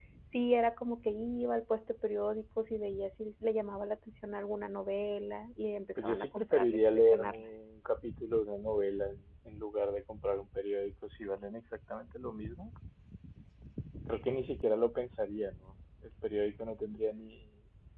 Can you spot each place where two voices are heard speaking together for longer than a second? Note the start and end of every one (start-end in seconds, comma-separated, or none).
6.0-7.5